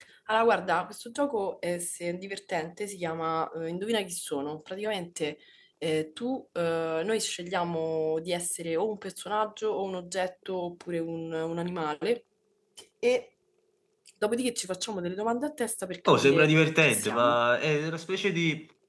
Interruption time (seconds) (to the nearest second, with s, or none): 16 s